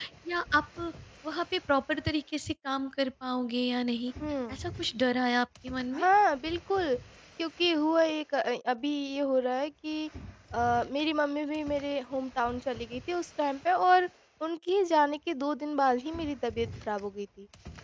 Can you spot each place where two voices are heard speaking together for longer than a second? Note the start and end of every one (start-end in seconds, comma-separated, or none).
none